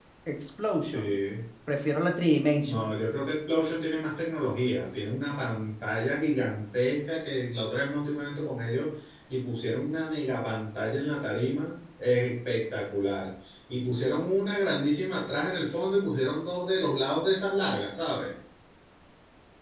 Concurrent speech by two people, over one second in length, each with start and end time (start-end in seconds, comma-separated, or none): none